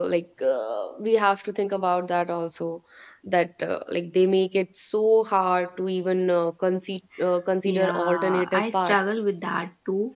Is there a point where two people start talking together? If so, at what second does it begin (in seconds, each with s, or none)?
7.7 s